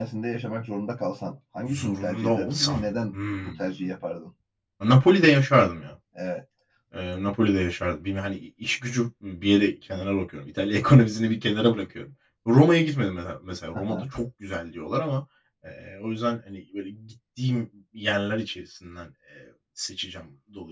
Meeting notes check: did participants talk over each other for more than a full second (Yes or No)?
Yes